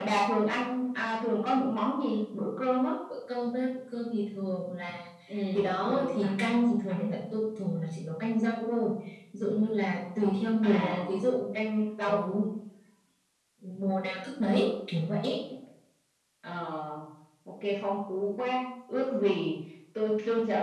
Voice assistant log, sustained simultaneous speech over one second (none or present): present